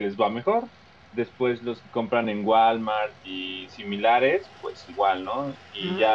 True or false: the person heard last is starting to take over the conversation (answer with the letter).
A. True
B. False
B